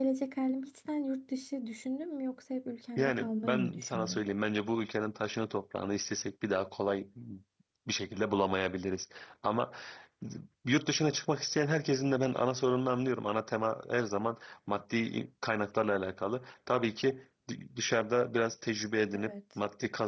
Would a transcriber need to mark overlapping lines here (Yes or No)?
Yes